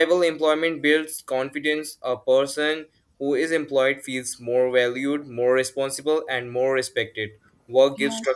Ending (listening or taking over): listening